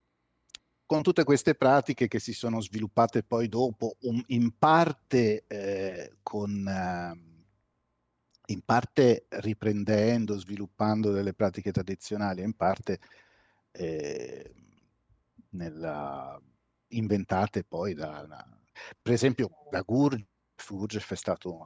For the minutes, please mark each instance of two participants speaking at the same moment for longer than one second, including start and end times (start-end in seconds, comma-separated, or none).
none